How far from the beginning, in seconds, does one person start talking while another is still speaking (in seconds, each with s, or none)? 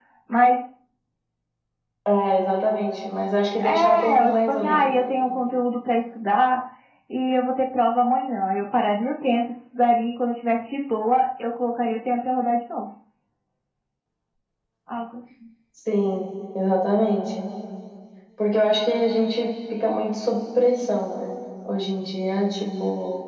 3.6 s